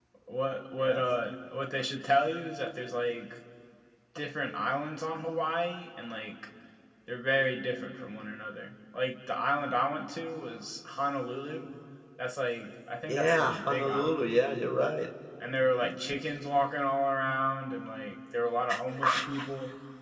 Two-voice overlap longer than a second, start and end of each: 13.1-14.3

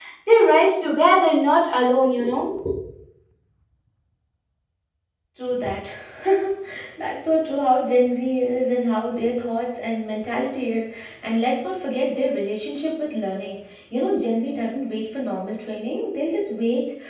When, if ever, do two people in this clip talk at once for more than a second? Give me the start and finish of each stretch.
none

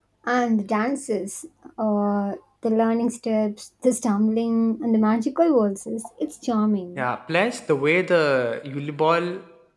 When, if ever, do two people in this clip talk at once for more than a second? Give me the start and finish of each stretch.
none

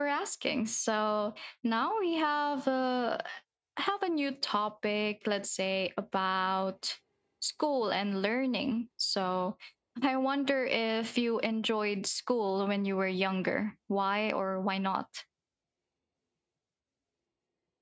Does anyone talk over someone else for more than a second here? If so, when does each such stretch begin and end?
none

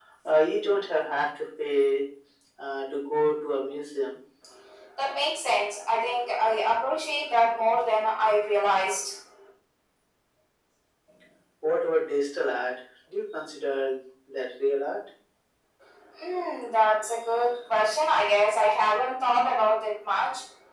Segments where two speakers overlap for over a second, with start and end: none

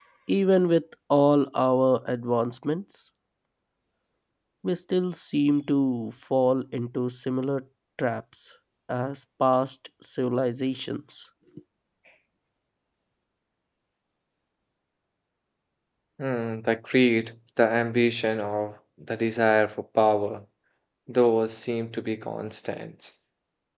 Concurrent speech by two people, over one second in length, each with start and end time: none

